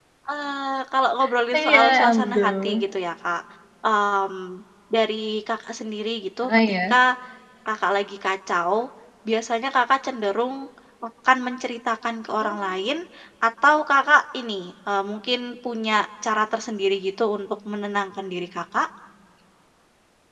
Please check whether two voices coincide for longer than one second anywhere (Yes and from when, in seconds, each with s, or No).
Yes, from 1.6 s